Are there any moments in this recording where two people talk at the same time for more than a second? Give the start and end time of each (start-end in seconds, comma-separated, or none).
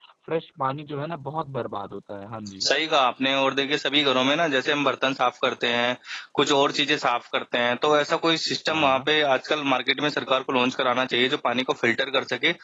none